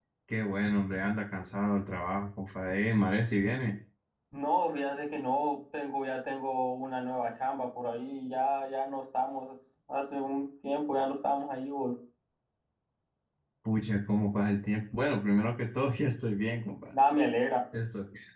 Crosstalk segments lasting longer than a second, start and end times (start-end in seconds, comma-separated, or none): none